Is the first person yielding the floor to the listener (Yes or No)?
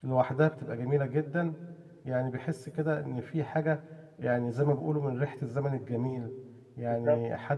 No